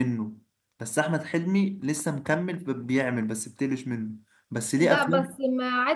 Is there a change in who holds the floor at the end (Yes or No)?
Yes